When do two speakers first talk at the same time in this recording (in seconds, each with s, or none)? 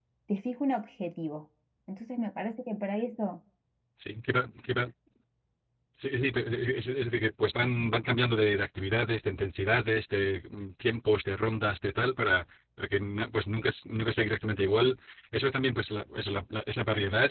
none